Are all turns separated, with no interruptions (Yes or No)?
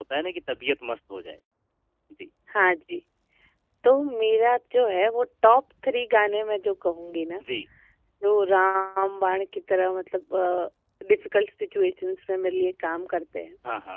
Yes